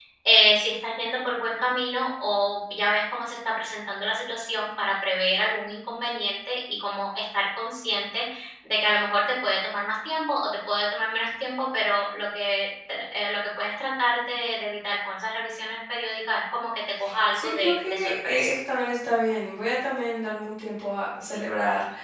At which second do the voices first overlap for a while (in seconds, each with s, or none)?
17.3 s